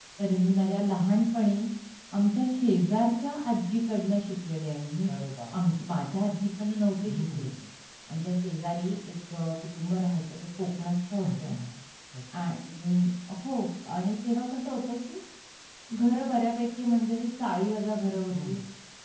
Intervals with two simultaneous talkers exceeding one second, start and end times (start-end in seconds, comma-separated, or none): none